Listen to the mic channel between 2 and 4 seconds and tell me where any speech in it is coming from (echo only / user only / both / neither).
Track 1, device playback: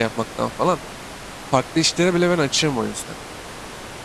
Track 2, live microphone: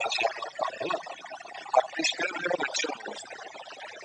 echo only